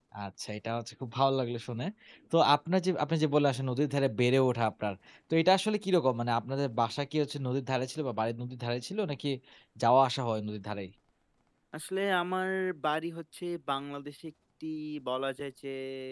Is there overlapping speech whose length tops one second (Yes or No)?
No